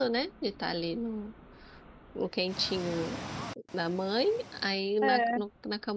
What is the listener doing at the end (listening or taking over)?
listening